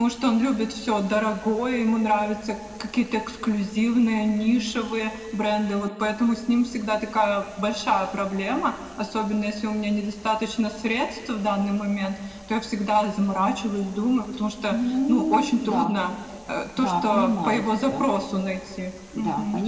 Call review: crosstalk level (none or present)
present